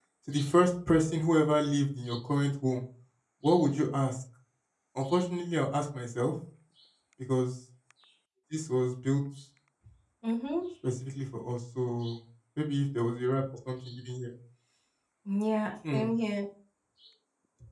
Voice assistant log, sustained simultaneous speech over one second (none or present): none